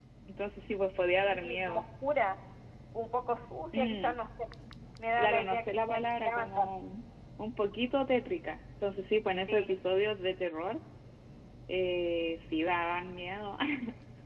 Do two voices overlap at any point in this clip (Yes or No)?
Yes